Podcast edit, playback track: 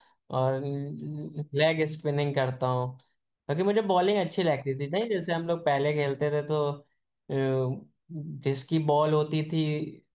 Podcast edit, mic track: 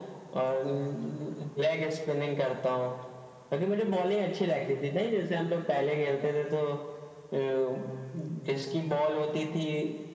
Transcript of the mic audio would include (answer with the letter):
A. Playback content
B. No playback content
A